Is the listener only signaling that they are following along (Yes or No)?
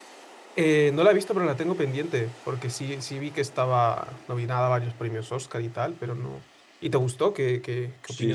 No